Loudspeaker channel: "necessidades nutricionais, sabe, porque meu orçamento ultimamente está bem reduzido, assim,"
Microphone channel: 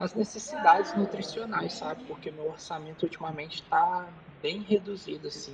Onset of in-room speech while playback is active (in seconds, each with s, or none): 0.4 s